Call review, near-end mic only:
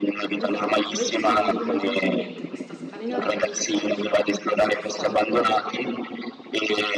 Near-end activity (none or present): present